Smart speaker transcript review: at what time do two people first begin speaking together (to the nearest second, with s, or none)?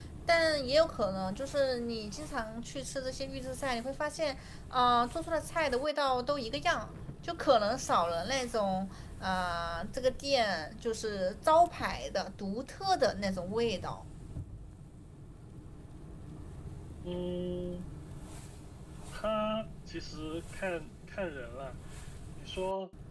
none